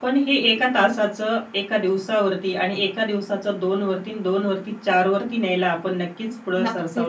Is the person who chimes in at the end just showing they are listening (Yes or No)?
No